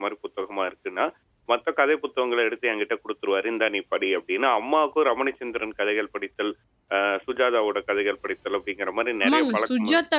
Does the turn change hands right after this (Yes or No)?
Yes